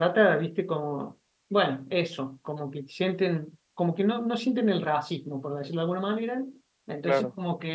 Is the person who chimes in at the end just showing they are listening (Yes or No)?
Yes